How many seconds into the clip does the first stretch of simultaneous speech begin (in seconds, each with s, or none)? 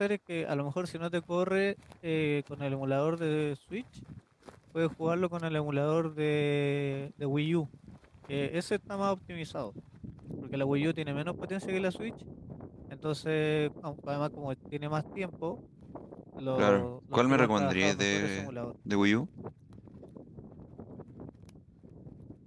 16.6 s